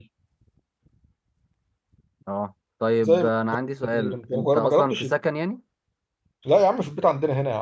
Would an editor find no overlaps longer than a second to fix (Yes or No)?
No